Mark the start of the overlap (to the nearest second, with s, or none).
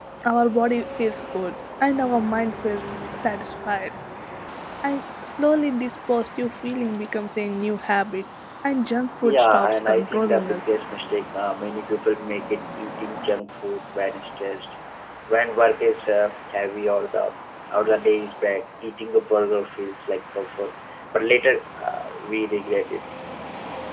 9 s